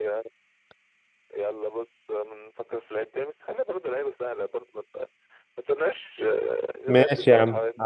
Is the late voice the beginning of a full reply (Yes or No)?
Yes